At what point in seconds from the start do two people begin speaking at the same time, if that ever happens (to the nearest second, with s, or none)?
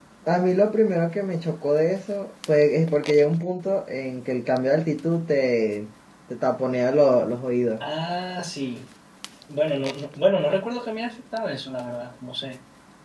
none